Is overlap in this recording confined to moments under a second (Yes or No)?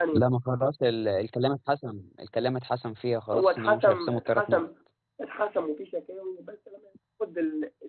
No